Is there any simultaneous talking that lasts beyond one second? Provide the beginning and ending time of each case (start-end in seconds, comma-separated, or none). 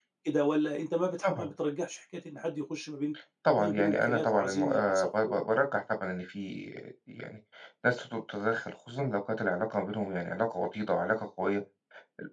3.6-5.3